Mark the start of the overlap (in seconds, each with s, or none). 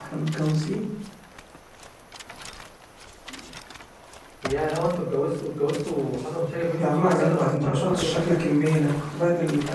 6.7 s